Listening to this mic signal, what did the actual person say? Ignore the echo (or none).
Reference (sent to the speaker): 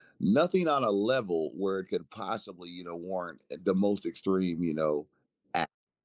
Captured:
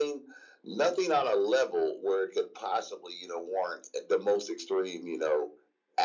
none